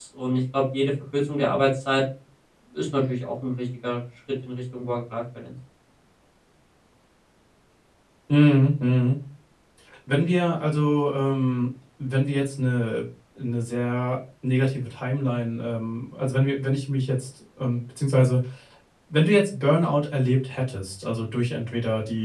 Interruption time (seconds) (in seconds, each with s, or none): none